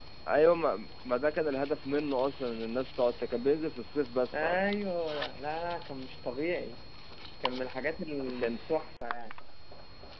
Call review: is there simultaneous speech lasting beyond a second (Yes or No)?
No